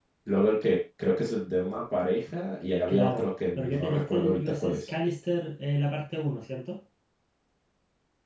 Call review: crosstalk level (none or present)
present